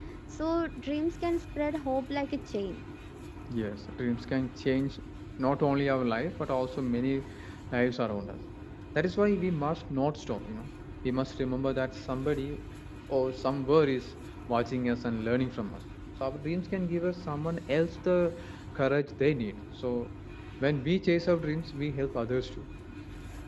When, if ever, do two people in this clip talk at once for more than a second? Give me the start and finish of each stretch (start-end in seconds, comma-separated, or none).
none